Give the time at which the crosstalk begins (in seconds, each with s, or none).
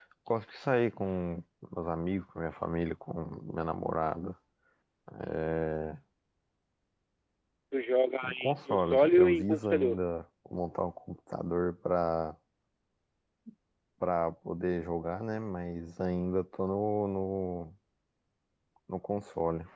8.2 s